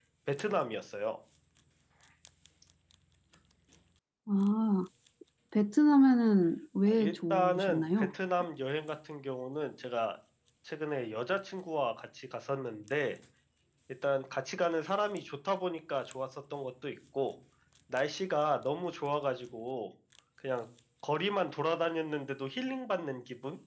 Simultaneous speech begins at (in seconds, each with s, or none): 6.9 s